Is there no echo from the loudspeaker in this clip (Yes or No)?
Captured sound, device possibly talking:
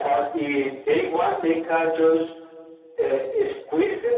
No